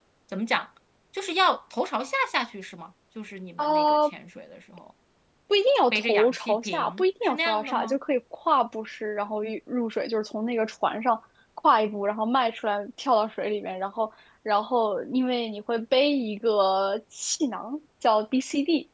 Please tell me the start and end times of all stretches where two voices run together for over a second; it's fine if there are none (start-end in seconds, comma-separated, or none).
5.9-8.0